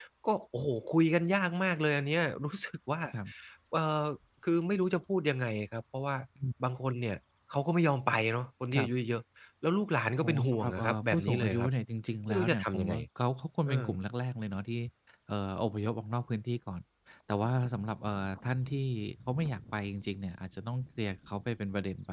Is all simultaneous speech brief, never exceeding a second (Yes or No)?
No